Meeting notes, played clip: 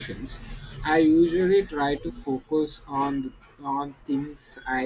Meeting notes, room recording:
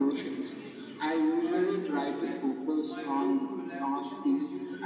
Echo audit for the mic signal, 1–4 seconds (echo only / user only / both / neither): both